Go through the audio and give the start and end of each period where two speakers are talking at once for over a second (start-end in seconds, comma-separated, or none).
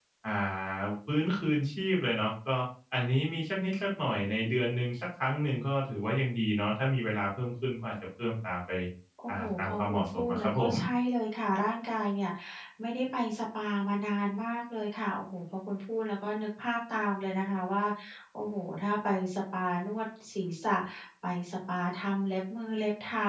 9.3-10.7